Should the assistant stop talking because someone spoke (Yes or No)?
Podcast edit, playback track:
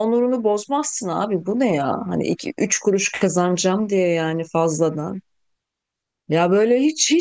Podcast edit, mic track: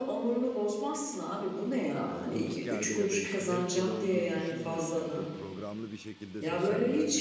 Yes